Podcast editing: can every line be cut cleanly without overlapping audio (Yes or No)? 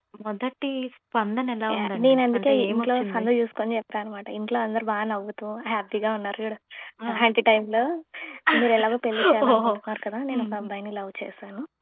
No